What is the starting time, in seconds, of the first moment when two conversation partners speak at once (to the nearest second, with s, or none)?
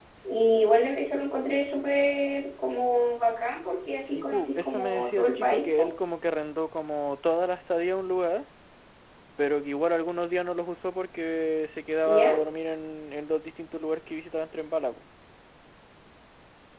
4 s